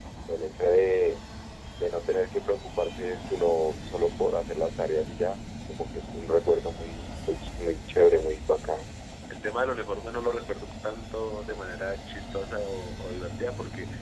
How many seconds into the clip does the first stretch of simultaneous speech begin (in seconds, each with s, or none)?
none